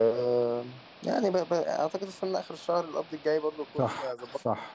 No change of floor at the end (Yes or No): No